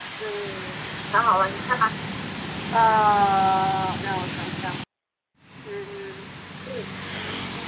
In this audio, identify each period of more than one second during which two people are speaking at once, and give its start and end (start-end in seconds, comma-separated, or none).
none